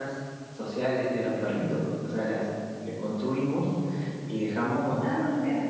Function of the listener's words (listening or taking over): listening